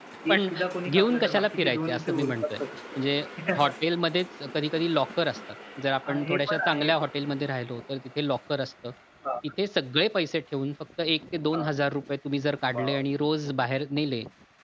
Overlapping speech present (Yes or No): Yes